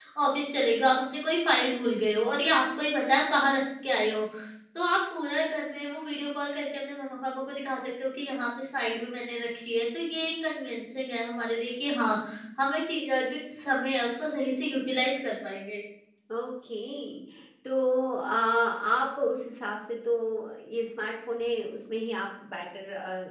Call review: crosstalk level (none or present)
none